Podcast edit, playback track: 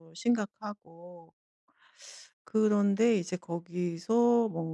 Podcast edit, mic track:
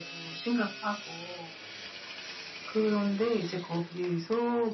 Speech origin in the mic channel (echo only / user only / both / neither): echo only